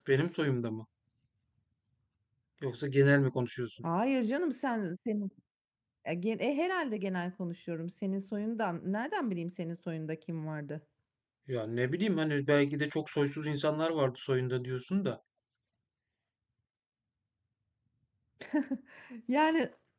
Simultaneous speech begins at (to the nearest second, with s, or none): none